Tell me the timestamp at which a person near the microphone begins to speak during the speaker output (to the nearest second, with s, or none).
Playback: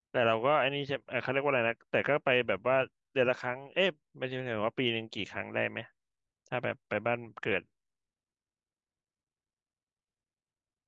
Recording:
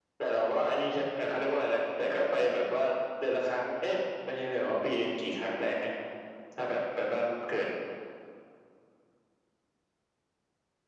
none